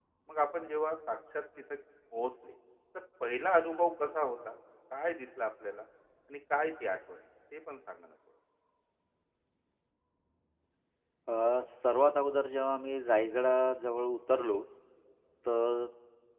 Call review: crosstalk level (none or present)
none